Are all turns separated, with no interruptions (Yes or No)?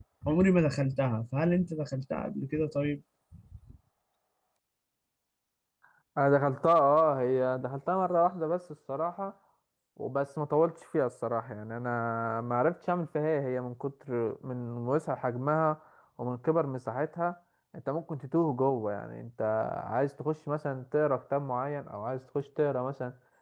Yes